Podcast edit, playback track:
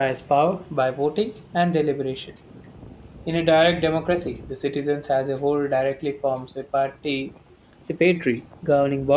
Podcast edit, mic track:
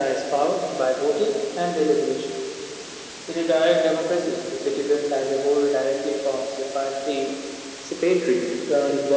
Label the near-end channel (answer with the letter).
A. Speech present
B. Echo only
B